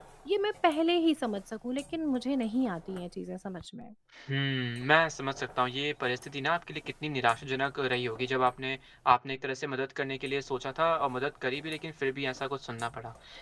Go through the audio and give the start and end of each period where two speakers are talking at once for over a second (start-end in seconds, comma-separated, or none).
none